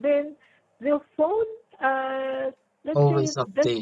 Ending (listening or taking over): listening